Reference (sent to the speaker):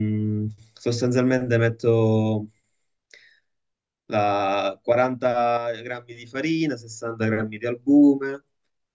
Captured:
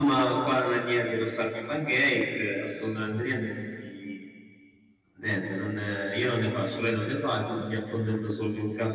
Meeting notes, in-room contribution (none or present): present